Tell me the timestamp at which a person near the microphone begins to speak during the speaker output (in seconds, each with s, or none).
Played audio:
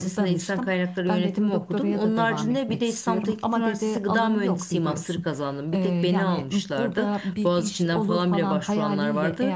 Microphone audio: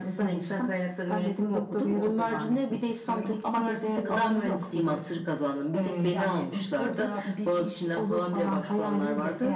none